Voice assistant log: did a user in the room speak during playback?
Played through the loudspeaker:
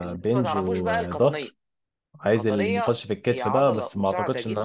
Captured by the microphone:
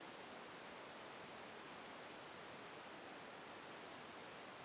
No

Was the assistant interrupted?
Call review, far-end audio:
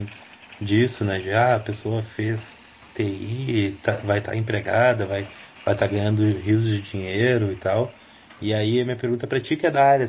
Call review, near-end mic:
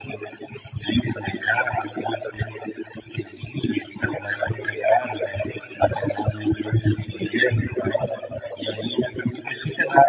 No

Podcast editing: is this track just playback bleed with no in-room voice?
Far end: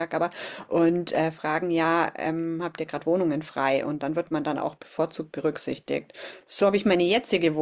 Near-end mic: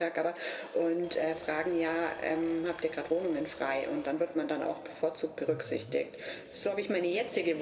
No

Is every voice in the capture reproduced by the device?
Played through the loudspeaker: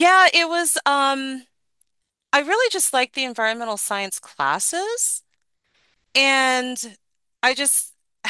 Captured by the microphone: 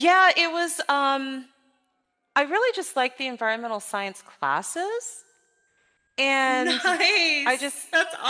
No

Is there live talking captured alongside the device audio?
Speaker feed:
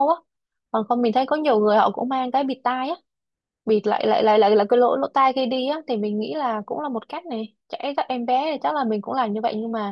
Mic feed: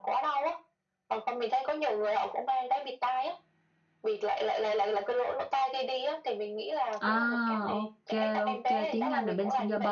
Yes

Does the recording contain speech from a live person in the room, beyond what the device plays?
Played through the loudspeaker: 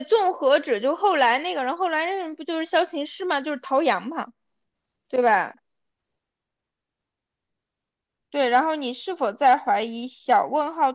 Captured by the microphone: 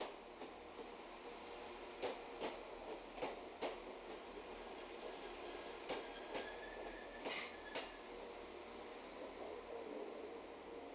No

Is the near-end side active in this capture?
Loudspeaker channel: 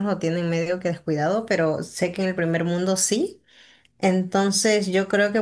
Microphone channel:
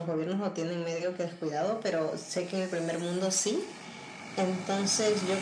No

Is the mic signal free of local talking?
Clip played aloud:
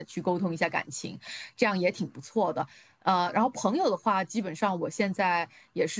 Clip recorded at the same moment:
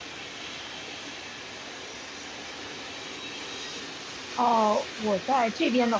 No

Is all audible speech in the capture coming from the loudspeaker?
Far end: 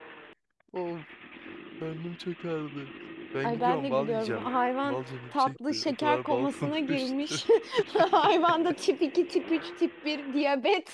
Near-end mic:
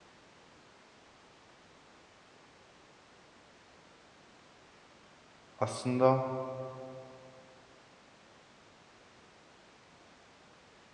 No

